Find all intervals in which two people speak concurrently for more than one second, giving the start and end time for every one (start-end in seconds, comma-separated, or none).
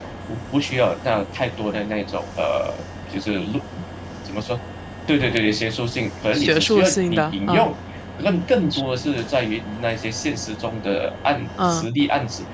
6.3-7.7